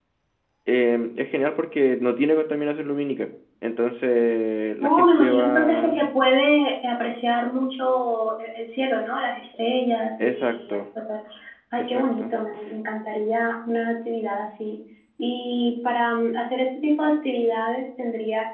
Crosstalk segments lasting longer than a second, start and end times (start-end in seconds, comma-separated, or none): 4.8-6.1